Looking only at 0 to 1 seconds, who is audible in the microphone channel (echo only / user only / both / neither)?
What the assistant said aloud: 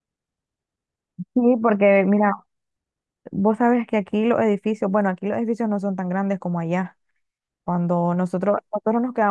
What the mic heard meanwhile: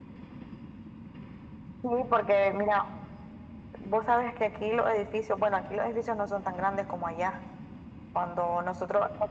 neither